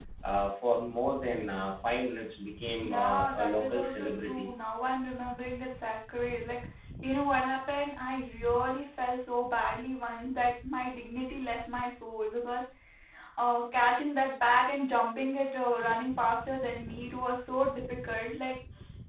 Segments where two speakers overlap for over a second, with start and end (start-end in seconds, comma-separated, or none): 2.8-4.5